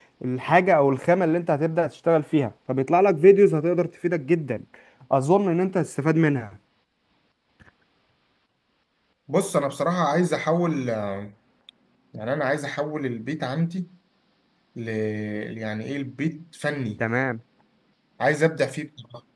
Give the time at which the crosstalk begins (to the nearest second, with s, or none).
none